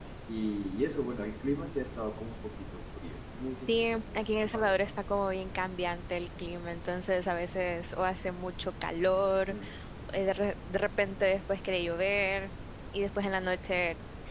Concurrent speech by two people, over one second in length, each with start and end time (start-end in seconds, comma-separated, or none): 3.6-5.0